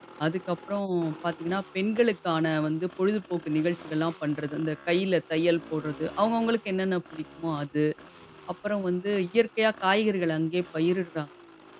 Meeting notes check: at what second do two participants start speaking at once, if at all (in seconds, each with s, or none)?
none